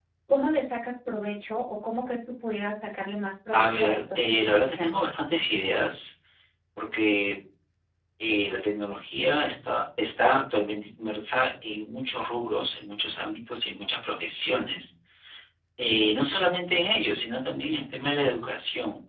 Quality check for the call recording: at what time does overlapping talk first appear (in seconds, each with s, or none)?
3.5 s